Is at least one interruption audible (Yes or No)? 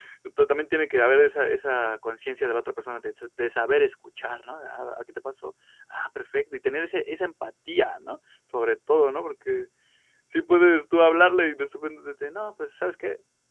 No